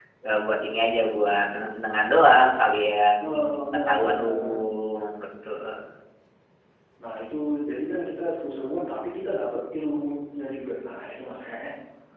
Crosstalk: present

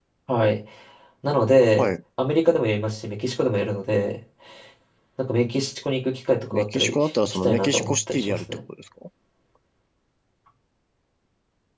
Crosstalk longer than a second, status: present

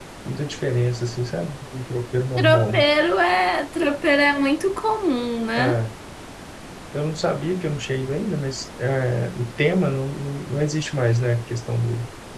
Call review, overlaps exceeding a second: none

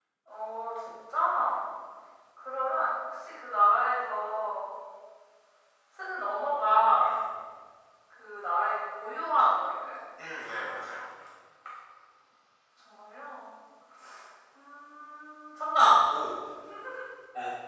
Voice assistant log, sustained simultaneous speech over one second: none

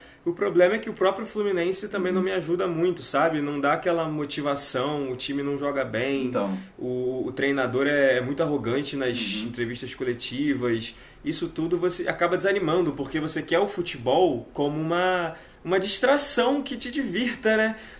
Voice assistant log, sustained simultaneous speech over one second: none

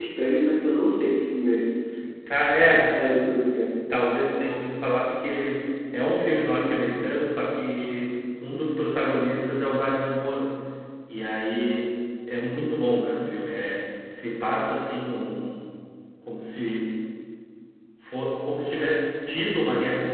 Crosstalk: none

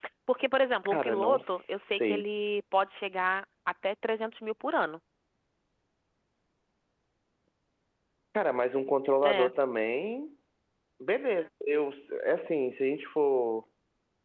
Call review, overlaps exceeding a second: present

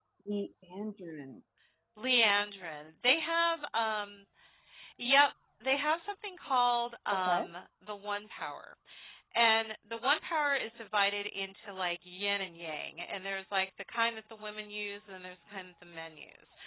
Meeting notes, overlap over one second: none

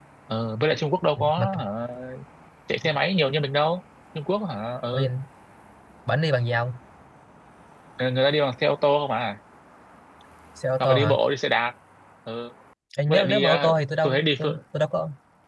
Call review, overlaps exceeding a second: present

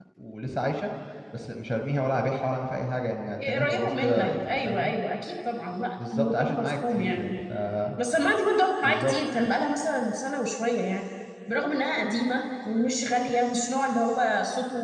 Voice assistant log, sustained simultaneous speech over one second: present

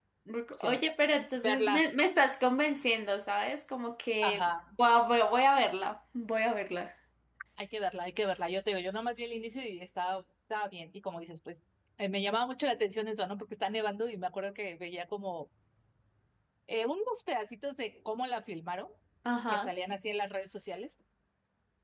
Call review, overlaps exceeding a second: none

